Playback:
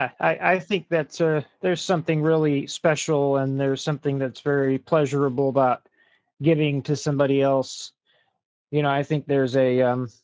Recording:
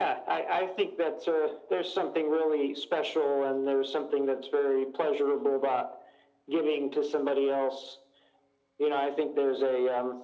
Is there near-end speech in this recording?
No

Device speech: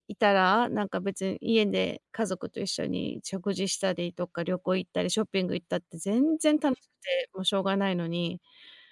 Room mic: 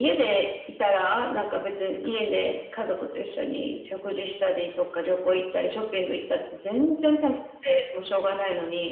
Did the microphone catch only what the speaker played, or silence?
Yes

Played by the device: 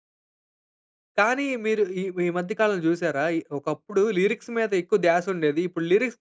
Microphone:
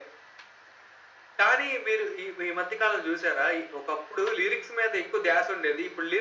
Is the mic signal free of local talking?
Yes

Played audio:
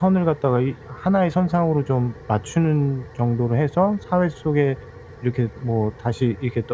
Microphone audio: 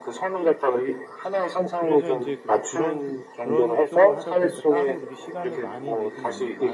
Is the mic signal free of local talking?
No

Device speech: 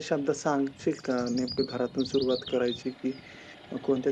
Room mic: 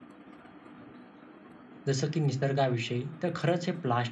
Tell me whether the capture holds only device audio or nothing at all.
No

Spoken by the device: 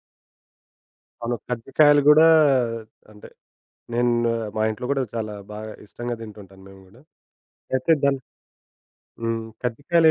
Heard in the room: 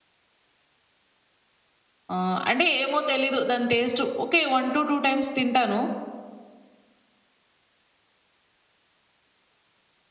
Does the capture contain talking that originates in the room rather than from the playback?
Yes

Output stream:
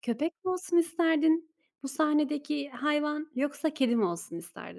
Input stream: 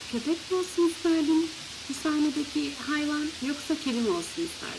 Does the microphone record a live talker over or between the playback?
No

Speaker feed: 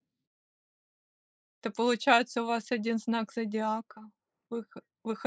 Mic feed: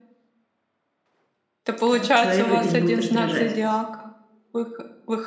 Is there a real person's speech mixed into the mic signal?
Yes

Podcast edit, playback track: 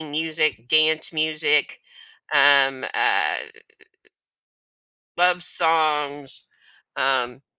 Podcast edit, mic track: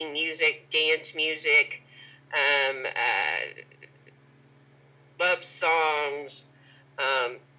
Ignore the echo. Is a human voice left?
No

